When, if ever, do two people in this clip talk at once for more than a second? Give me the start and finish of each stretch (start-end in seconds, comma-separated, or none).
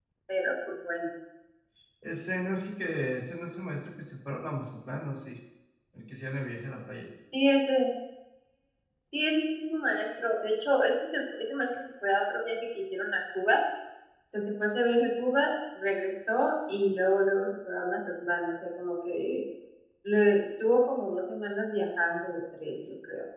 none